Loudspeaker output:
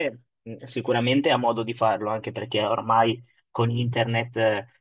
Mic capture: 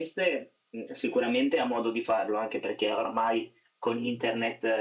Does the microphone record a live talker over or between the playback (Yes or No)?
No